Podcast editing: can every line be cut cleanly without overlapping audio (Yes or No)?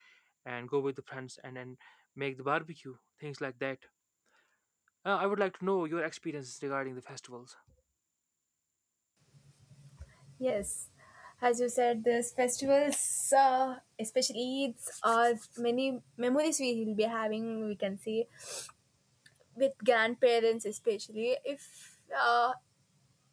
Yes